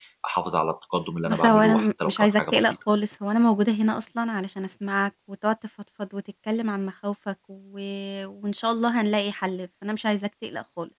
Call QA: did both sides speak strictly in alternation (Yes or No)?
No